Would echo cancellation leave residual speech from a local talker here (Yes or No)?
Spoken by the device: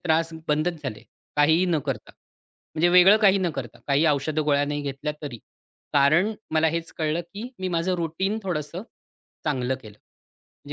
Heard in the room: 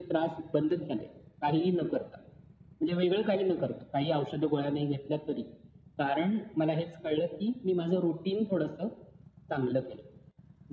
No